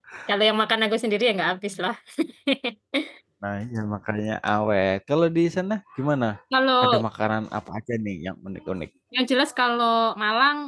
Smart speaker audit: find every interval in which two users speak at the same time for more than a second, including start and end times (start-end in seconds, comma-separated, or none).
none